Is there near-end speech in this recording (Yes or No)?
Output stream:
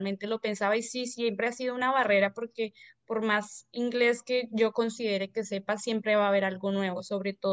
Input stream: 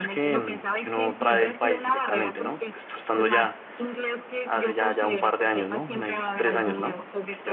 Yes